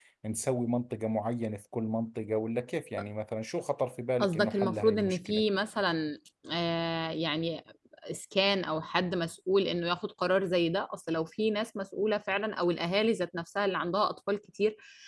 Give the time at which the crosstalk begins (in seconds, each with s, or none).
4.2 s